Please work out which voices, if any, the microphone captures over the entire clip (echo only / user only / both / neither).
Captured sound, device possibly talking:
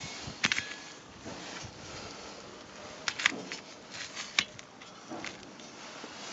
neither